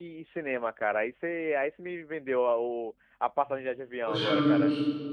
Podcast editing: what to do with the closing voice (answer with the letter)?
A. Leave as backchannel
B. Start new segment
B